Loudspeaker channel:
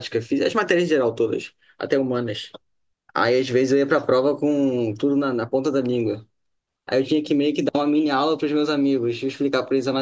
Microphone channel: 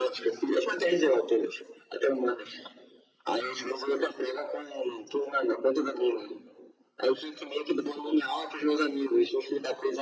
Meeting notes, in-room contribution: none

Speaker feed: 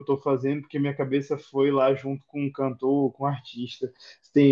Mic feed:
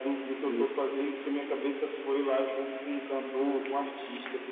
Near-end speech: present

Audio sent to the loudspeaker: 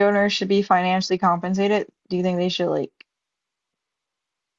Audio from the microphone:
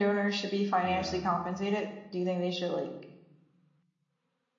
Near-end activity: present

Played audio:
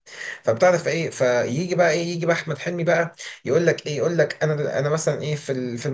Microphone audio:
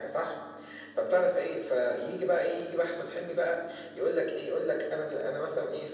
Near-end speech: none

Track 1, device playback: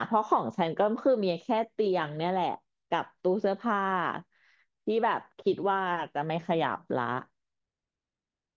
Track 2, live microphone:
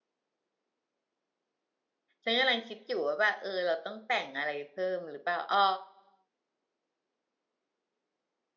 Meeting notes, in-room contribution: present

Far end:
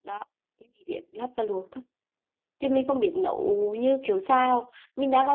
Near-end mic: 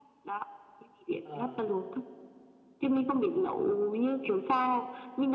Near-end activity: present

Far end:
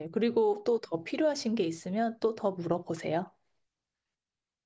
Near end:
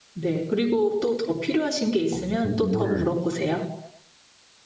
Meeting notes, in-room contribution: present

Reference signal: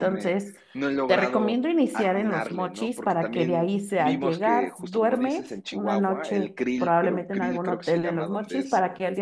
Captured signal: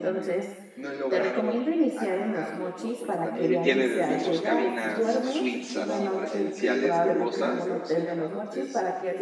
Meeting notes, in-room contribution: present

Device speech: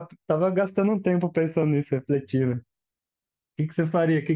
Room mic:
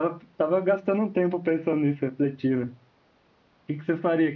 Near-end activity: none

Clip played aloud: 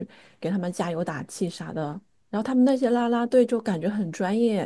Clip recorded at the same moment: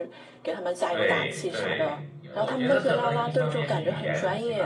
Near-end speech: present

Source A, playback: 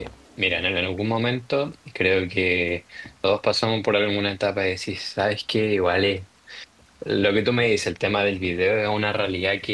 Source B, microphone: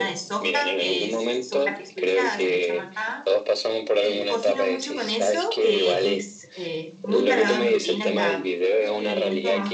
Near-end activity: present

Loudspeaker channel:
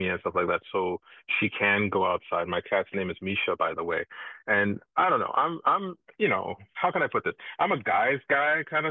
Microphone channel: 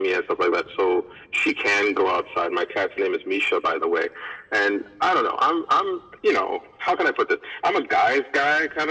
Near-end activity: none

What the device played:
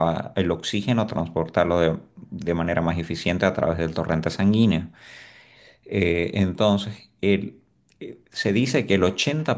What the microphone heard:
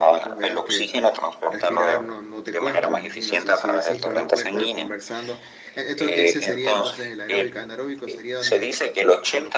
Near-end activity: present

